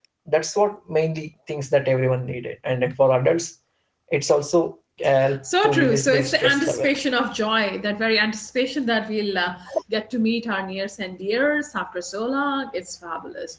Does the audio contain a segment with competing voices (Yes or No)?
Yes